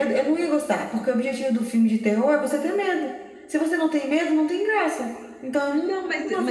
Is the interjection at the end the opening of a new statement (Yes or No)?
Yes